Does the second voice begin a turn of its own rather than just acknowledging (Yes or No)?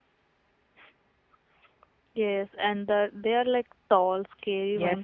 Yes